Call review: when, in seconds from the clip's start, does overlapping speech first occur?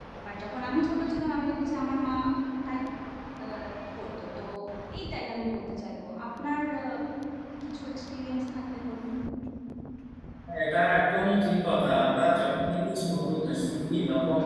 none

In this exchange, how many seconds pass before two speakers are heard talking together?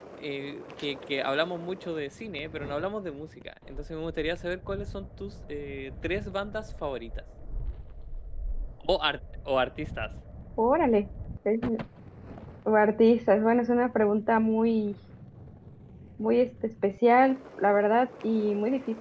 none

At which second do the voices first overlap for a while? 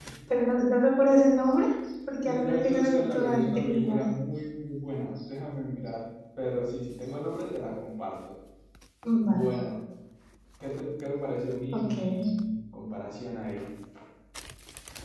2.3 s

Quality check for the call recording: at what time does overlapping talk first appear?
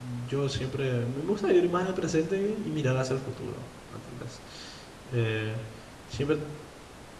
none

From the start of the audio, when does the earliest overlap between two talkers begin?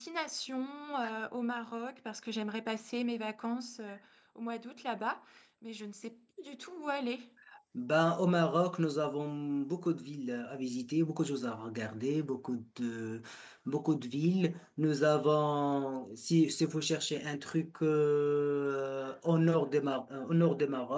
none

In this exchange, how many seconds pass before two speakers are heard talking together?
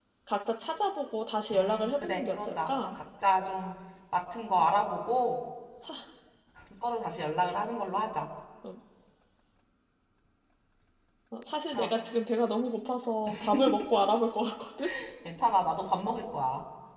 1.5 s

